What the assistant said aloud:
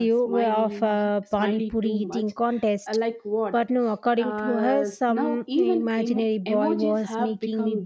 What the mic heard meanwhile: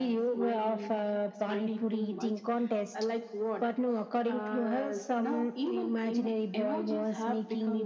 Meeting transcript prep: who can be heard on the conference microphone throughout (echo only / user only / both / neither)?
echo only